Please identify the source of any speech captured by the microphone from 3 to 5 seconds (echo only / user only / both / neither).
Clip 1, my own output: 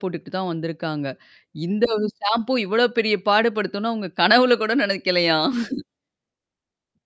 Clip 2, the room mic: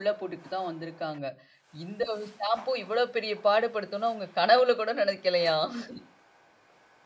echo only